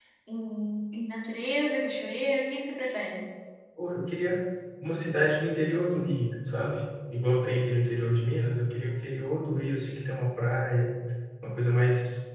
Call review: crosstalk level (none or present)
none